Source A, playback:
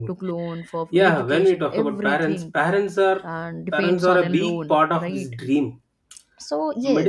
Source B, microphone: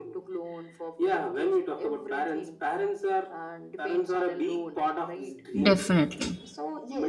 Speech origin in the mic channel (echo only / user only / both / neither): both